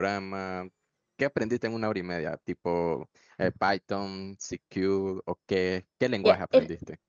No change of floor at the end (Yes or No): No